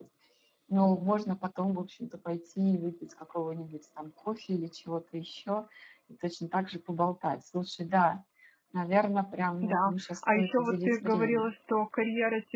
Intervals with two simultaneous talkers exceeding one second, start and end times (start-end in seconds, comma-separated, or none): 9.6-11.5